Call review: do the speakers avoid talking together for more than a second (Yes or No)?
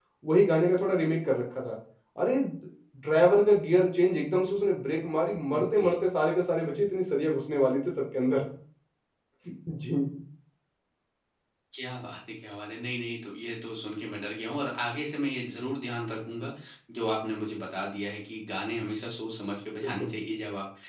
Yes